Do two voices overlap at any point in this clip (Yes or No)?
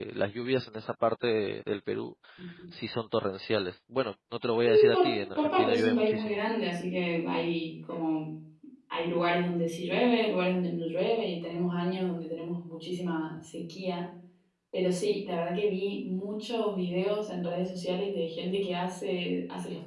Yes